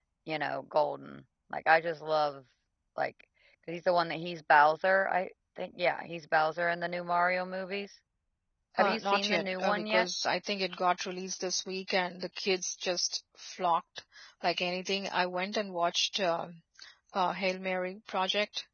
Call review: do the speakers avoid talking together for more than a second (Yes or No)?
No